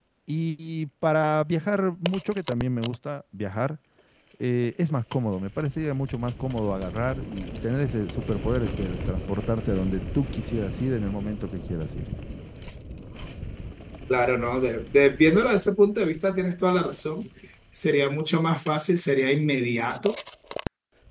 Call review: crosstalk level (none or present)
none